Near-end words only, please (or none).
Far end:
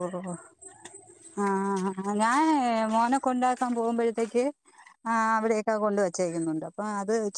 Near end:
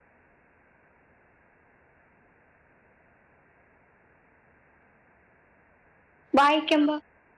വായിക്യും